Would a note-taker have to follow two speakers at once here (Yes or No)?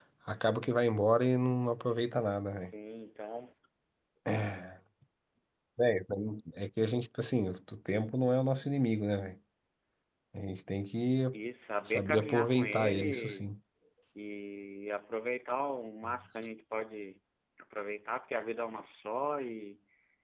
Yes